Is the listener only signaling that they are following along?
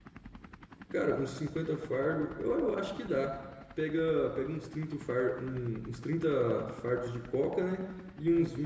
Yes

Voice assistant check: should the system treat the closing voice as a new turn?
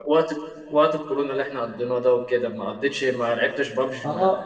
Yes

